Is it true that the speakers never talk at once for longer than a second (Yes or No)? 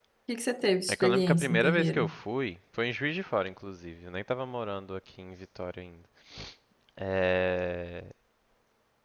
No